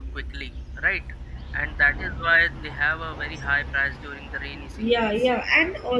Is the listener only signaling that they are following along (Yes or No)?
No